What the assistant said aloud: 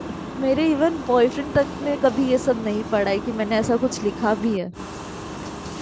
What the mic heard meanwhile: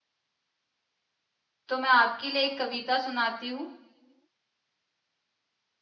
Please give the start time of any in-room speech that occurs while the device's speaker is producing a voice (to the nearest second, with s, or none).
2 s